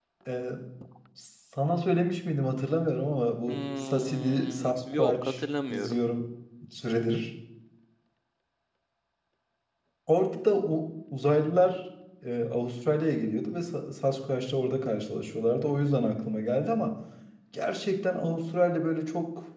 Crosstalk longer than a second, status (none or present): present